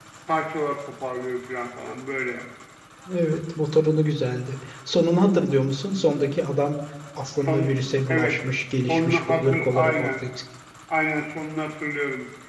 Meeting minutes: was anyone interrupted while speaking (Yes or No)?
Yes